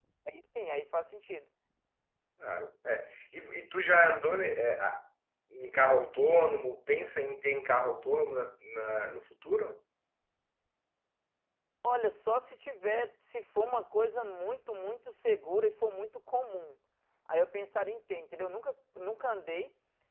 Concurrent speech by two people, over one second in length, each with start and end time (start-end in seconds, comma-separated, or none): none